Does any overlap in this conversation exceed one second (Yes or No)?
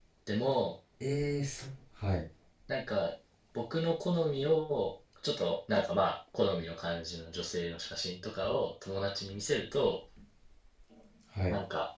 No